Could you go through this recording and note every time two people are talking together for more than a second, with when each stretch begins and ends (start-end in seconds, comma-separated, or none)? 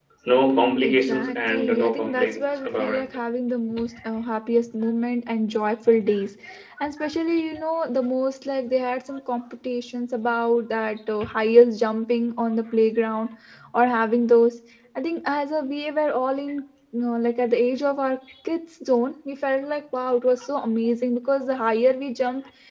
0.8-3.1